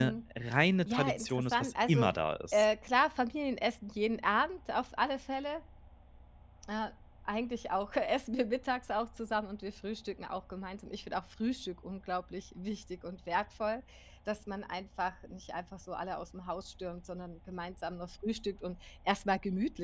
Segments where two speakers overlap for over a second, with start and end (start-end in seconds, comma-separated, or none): 0.8-2.1